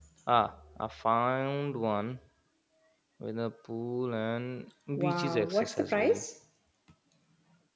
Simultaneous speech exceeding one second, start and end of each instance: 5.0-6.2

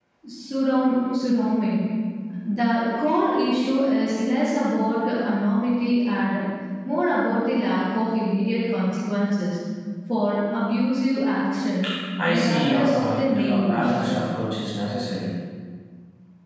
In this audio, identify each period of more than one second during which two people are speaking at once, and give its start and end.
12.3-13.9

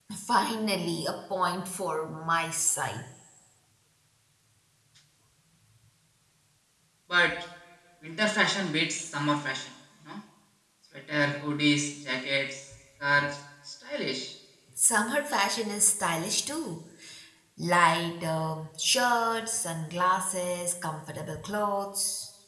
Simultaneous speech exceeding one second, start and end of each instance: none

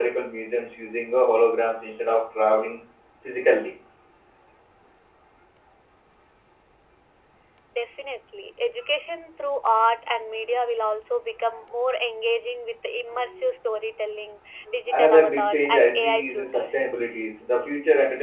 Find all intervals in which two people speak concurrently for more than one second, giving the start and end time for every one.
14.9-16.8

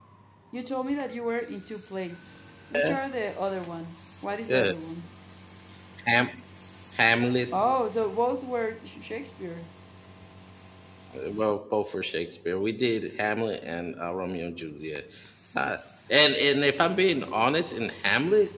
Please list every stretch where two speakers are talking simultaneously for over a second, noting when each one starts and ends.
none

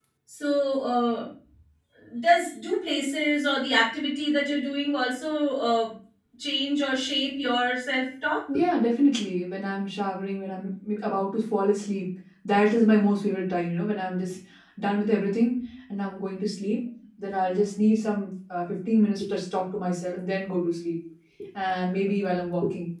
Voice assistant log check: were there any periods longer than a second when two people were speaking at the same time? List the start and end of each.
none

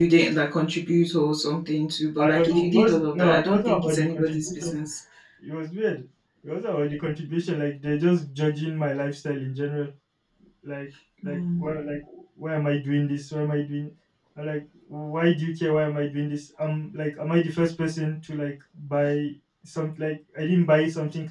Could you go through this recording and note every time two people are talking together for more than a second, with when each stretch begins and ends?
2.2-4.7

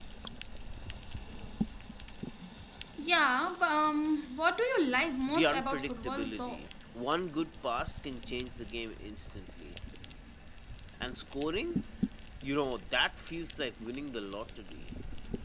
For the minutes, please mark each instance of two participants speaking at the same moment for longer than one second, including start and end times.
5.3-6.6

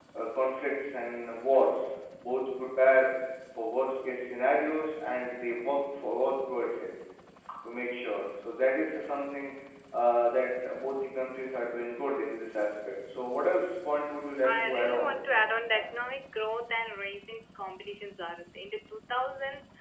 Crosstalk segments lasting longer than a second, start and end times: 14.4-15.9

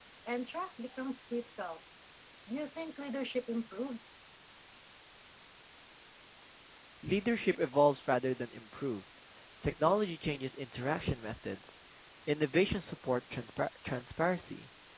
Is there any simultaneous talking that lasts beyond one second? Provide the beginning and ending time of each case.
none

